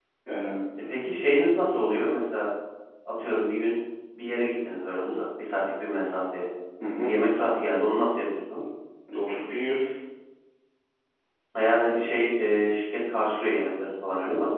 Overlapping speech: No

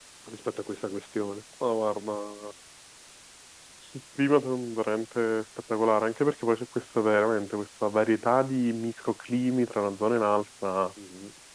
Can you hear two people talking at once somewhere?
No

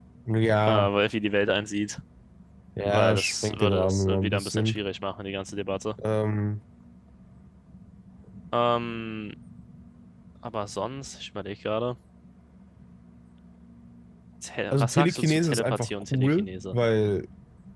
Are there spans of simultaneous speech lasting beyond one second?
Yes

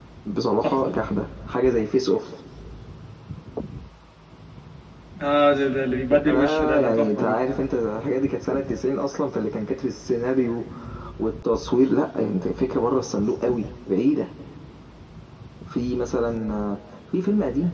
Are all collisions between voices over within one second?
No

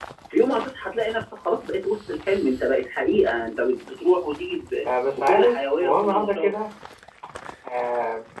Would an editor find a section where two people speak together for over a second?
Yes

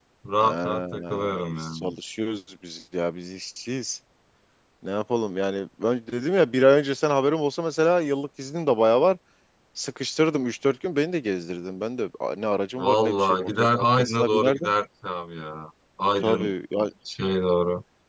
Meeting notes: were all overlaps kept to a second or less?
No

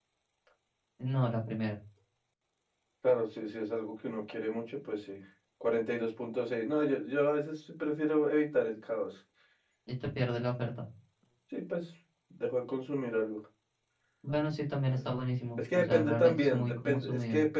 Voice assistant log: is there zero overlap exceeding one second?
No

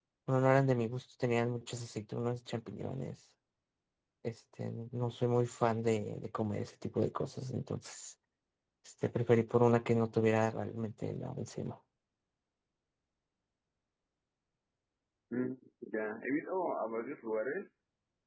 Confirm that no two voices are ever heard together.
Yes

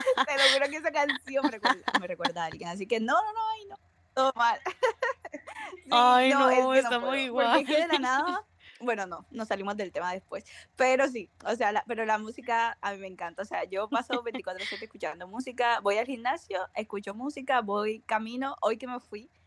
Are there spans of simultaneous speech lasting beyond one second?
Yes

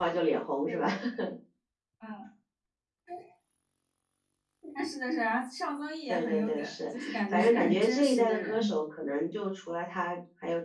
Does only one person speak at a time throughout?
No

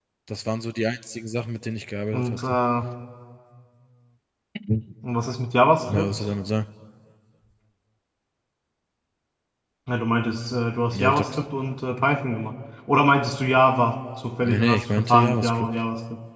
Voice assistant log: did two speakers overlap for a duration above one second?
Yes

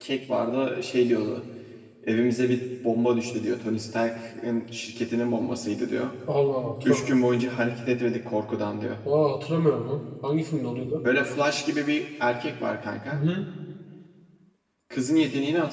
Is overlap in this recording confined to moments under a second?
Yes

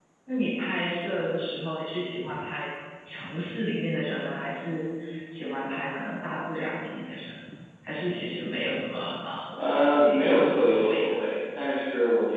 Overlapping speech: Yes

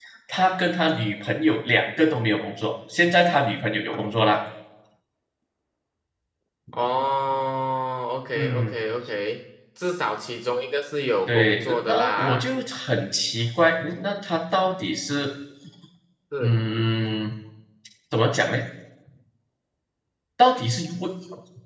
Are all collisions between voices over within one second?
No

